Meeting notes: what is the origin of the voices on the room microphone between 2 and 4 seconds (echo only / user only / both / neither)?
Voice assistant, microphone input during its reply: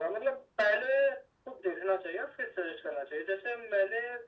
echo only